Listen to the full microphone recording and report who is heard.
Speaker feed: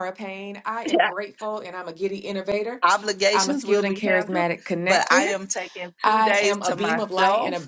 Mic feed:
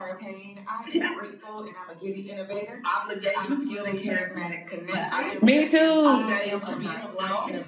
both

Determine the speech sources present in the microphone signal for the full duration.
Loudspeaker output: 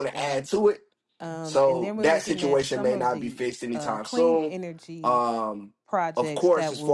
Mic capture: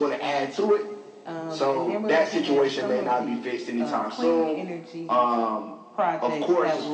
echo only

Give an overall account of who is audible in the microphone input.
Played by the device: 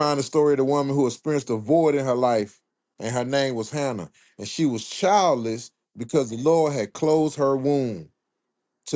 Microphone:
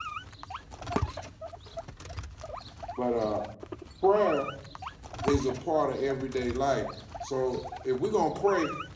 user only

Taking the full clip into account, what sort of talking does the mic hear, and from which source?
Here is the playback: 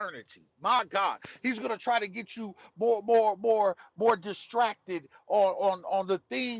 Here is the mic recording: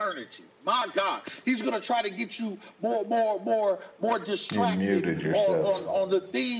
both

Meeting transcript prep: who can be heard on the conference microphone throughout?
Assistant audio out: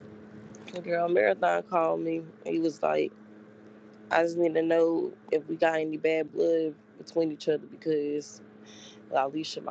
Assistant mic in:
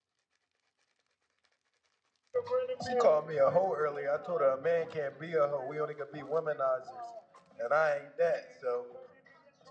user only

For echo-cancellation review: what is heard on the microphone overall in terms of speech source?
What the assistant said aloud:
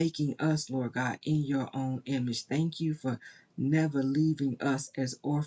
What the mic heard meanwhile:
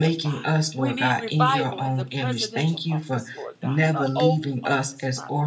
both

